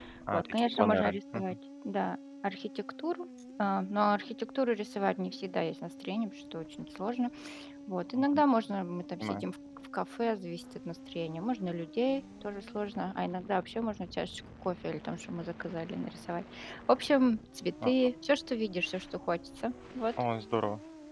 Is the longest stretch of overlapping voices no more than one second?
No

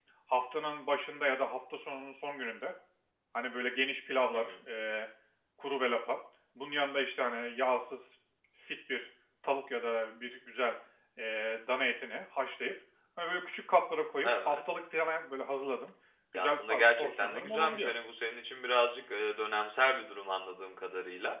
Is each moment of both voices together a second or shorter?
No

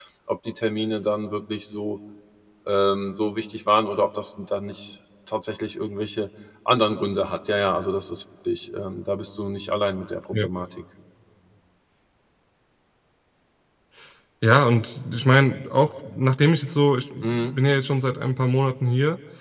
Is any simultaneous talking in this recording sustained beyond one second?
No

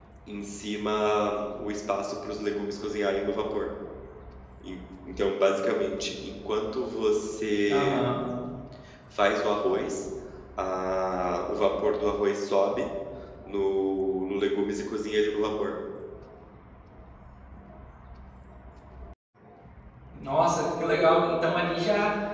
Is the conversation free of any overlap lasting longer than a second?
Yes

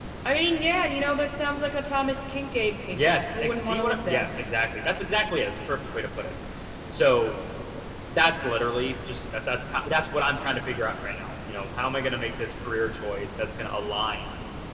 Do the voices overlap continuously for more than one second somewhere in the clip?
Yes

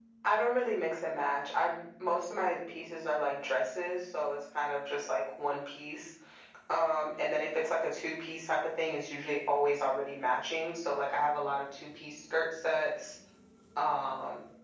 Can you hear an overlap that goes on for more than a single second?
No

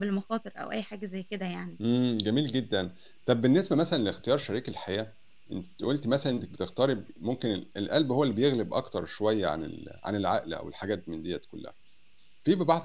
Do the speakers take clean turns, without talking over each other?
Yes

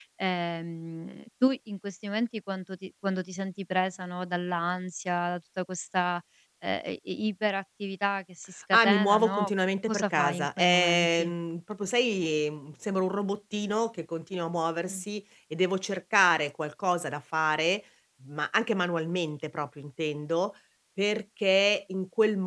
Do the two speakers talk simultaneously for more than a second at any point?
Yes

